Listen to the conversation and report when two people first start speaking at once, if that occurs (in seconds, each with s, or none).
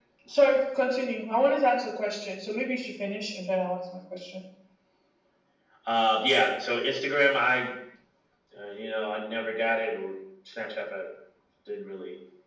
none